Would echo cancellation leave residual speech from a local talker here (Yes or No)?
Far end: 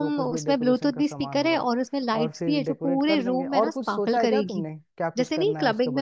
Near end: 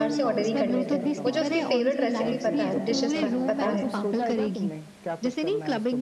Yes